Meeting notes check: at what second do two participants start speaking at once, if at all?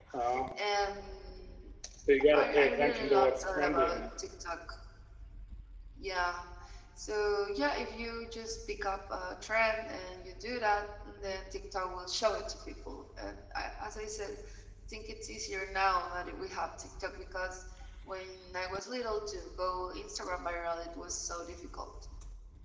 2.3 s

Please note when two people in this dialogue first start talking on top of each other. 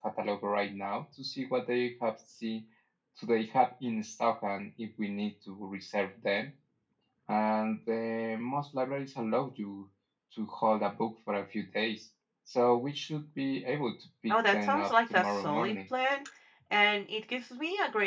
14.3 s

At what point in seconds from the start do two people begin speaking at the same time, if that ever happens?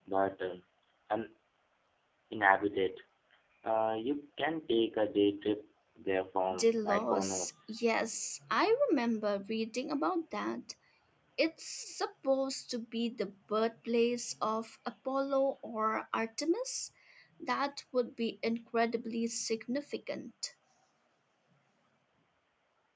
6.5 s

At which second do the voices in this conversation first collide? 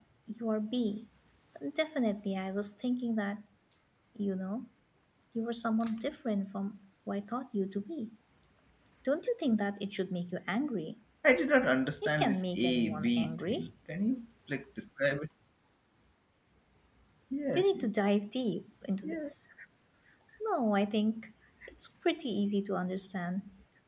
12.0 s

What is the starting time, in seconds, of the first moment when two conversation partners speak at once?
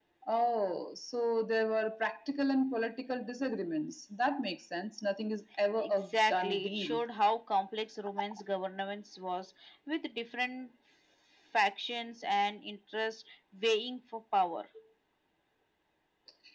5.8 s

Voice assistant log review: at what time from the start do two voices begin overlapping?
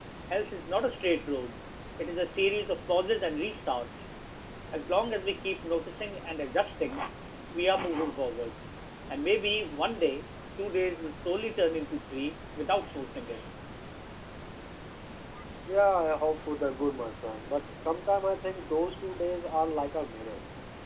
none

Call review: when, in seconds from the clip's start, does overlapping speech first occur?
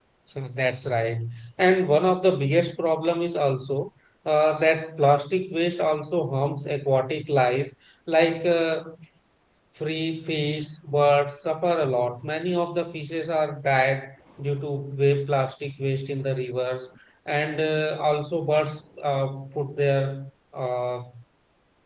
none

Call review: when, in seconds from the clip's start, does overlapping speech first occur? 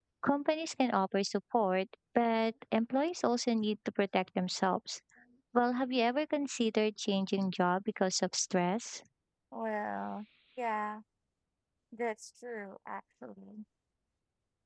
none

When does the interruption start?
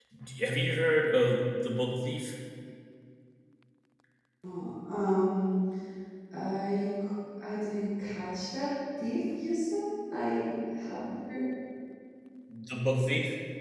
none

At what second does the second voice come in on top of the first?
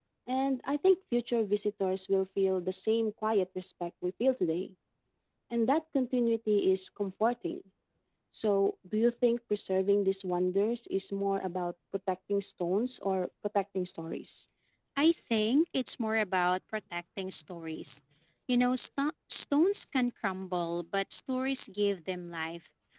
none

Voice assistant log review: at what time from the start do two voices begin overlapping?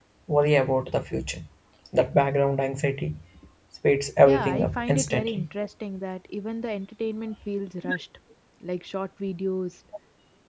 4.2 s

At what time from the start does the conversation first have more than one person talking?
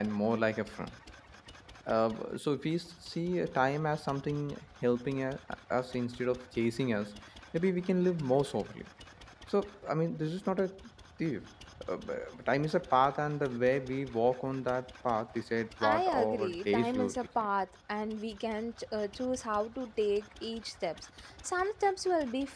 15.8 s

